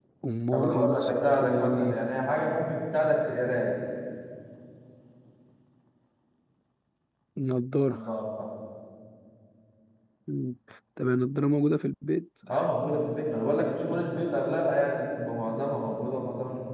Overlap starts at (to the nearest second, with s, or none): 1 s